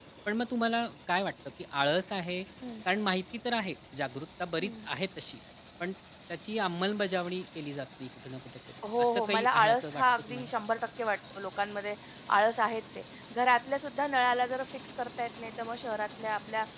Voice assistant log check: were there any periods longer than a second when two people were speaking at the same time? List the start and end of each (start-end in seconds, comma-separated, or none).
9.0-10.5